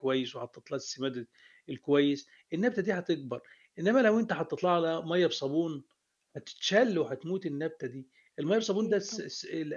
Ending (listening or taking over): listening